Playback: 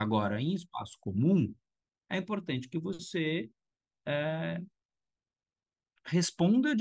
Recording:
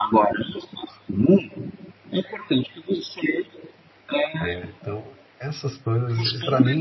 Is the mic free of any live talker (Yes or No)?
No